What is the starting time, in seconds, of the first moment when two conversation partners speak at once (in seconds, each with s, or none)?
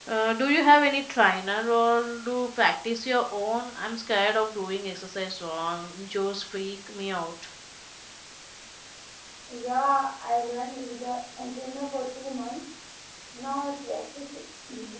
none